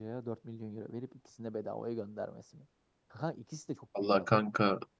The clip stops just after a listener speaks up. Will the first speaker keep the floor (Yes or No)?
No